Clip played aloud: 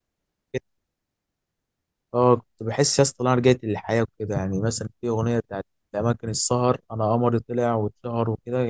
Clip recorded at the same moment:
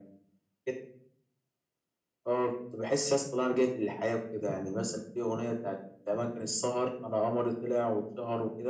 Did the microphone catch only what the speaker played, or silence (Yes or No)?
Yes